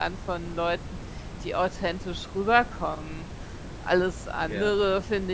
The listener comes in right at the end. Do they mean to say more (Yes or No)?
No